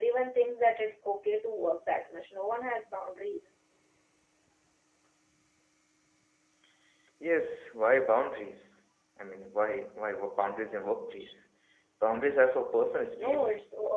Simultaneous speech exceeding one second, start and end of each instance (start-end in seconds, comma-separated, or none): none